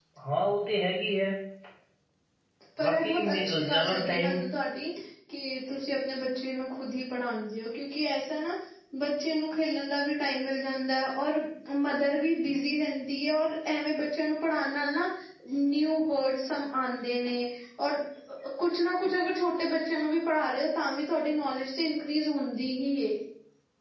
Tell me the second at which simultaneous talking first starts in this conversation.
2.9 s

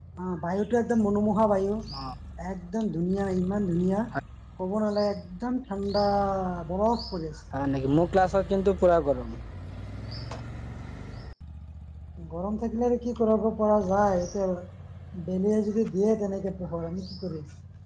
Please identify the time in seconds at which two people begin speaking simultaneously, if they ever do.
none

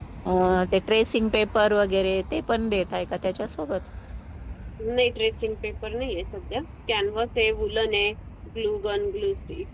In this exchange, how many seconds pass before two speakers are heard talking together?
none

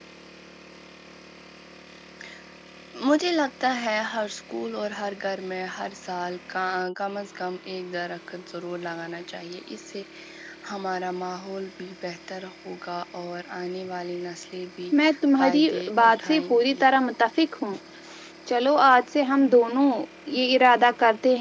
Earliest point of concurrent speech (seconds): 15.4 s

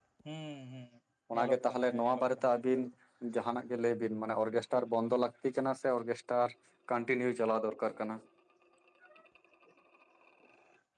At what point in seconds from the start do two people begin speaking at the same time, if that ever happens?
1.3 s

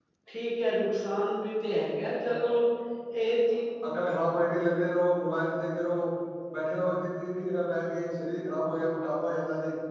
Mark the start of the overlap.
none

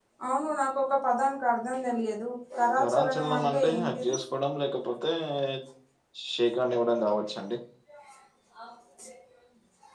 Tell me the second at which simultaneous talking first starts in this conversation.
2.8 s

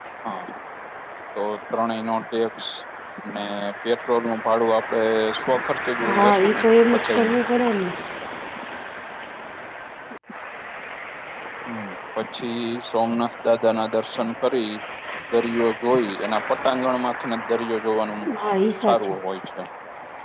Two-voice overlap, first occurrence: 6.1 s

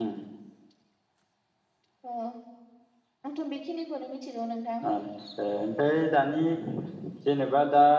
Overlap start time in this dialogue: none

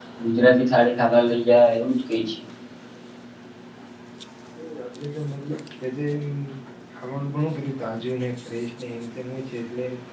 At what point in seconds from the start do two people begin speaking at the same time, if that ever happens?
none

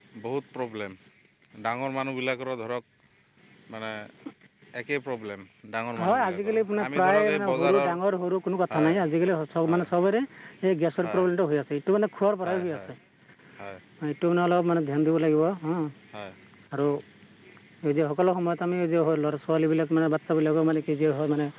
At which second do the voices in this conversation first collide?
6.0 s

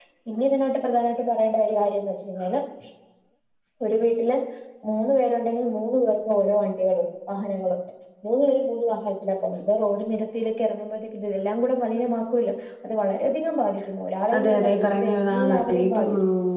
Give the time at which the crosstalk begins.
14.3 s

